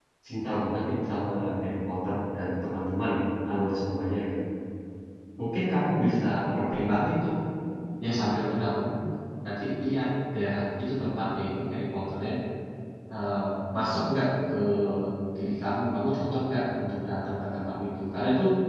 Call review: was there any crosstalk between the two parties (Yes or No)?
No